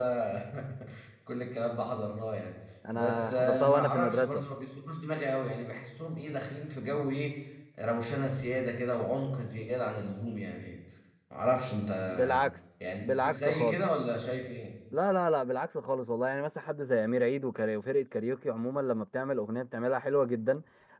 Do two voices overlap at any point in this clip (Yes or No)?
Yes